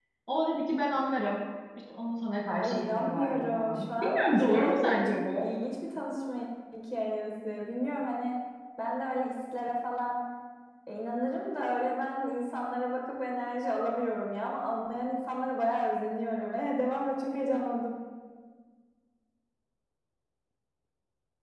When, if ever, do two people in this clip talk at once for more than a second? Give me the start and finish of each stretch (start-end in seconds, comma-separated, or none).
2.6-5.5